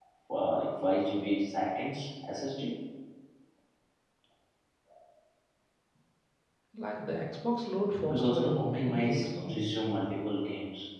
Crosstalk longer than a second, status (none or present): present